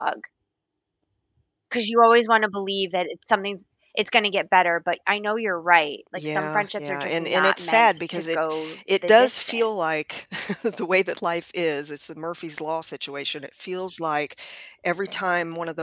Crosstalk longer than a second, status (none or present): present